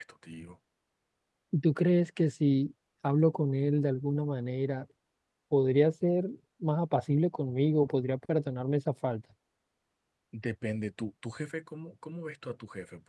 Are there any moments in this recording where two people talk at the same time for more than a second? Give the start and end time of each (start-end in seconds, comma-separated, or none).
none